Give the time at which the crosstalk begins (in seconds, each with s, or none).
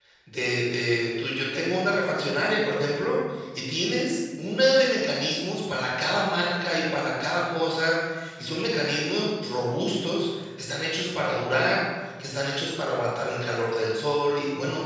none